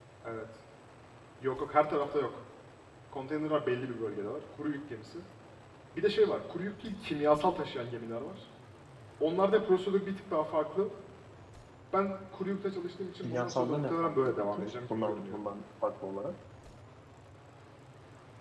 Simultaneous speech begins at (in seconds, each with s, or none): 13.2 s